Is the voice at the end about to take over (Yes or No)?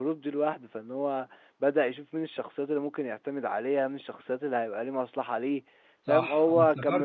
Yes